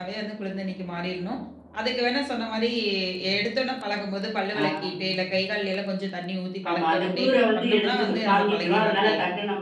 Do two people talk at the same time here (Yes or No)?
Yes